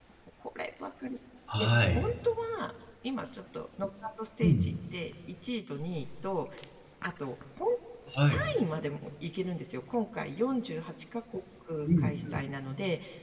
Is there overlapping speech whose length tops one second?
No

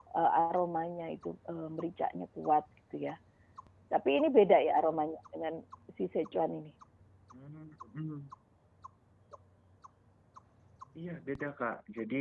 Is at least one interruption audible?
No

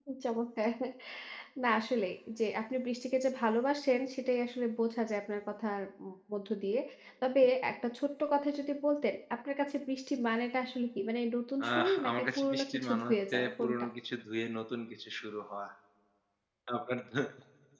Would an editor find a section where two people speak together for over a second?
Yes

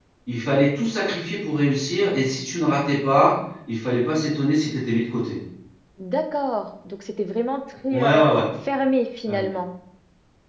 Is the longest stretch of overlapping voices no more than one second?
Yes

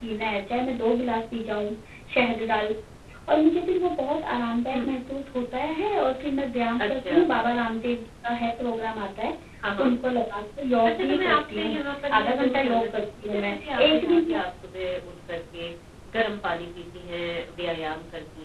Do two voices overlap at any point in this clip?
Yes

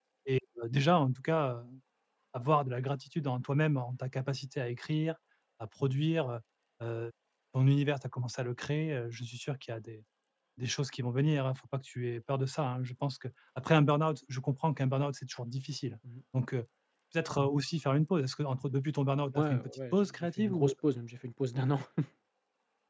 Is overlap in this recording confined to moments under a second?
No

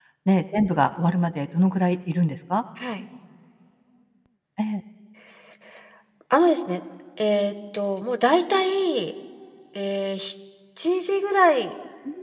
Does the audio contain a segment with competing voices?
No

